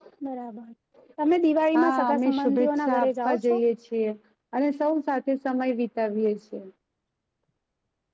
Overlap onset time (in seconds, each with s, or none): 1.8 s